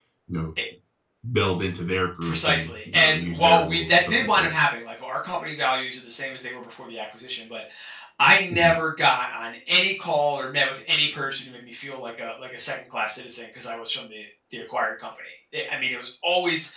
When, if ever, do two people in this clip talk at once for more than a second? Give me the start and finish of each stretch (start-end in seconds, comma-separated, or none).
2.2-4.5